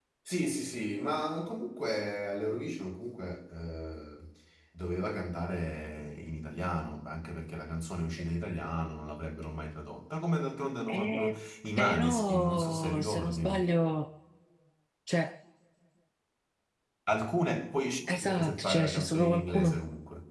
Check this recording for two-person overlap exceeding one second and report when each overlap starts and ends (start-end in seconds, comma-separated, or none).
11.8-13.6, 18.1-19.8